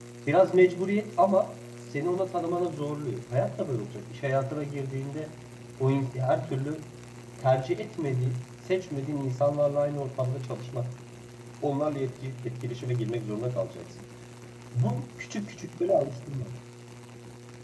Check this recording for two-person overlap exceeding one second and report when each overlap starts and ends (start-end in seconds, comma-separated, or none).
none